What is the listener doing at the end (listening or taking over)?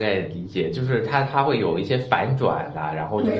taking over